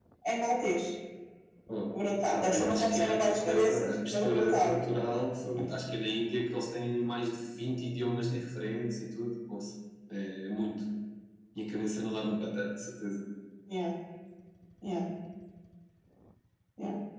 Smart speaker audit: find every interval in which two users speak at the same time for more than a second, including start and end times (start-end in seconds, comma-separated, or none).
2.3-4.7